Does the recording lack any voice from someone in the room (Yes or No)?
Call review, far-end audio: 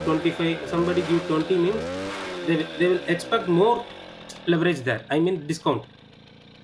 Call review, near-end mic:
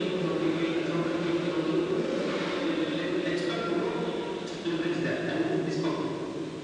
Yes